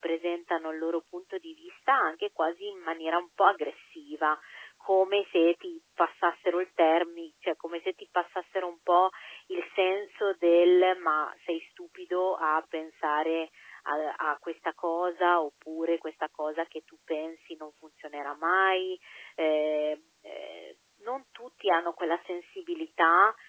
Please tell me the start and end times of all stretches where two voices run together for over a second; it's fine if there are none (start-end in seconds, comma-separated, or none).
none